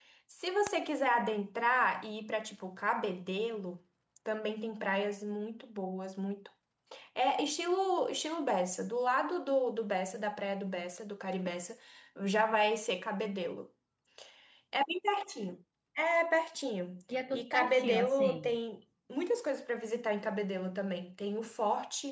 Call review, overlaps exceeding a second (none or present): present